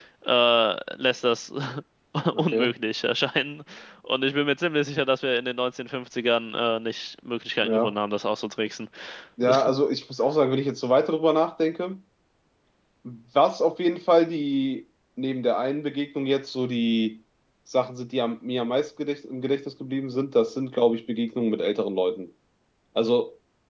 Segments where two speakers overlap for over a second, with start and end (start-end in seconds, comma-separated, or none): none